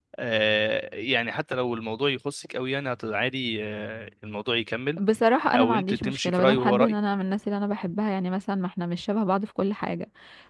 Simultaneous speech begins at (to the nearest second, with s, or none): 6 s